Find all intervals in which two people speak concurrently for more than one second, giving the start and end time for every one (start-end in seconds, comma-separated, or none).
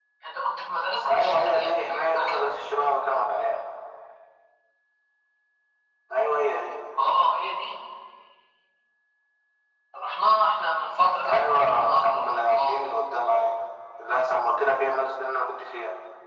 1.1-2.5, 11.2-12.8